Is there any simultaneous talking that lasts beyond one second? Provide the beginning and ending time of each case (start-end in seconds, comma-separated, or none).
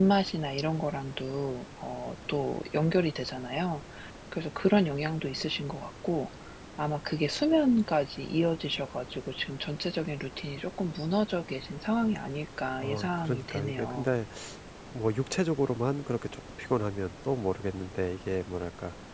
12.8-14.1